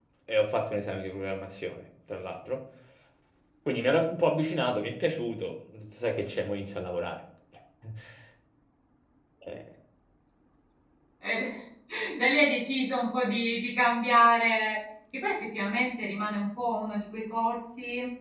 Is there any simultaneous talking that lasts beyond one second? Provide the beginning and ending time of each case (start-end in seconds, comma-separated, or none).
none